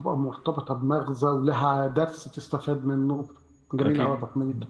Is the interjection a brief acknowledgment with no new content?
No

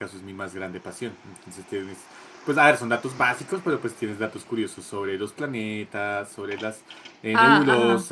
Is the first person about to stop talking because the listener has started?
No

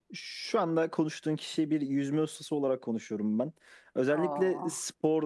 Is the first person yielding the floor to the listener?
No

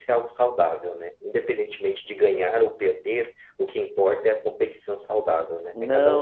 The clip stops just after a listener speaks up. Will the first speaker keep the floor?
No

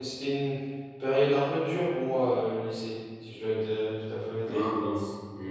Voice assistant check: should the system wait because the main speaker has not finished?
No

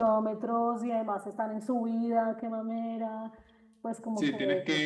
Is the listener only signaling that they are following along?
No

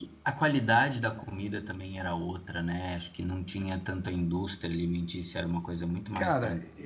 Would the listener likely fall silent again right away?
No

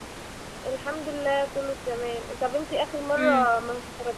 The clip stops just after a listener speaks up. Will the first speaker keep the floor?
Yes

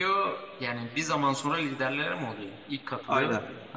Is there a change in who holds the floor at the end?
Yes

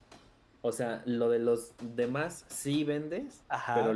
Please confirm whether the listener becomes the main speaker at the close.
Yes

